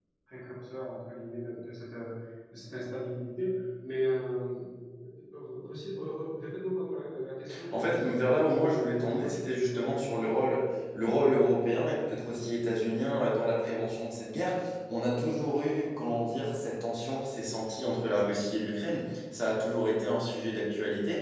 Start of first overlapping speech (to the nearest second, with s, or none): 7 s